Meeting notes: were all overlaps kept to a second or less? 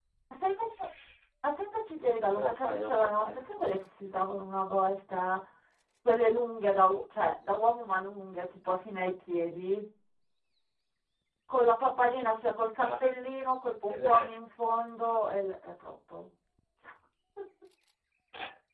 No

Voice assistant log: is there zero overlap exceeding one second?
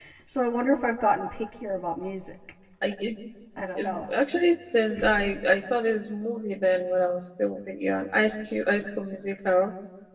Yes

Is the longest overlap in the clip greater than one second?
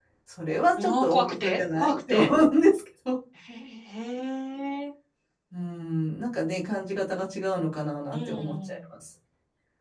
Yes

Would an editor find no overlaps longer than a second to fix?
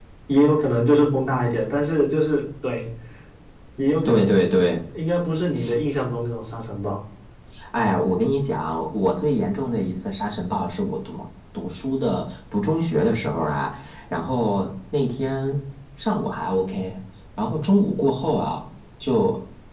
Yes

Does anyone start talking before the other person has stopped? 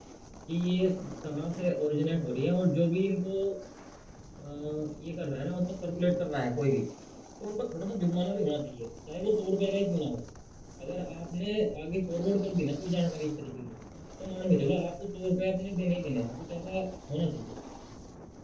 No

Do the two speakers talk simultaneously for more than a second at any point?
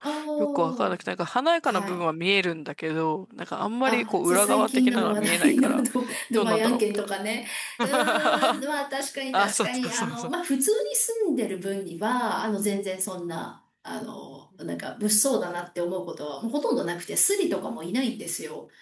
Yes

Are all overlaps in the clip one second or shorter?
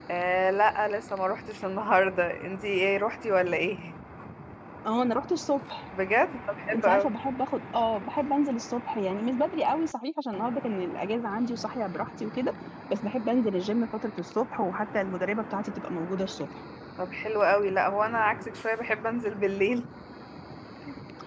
Yes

